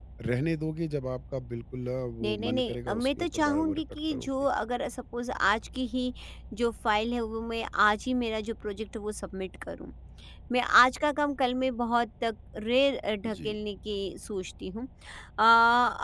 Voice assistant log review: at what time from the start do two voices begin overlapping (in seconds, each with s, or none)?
2.2 s